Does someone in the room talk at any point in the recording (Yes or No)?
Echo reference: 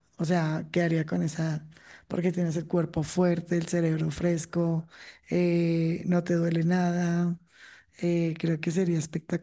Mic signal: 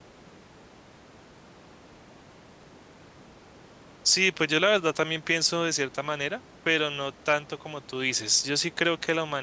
Yes